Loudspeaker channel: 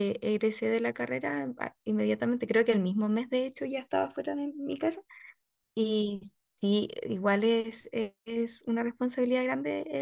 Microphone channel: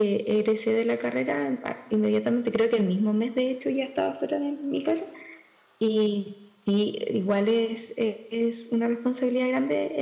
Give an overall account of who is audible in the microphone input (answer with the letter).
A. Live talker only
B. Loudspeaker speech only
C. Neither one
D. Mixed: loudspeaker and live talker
B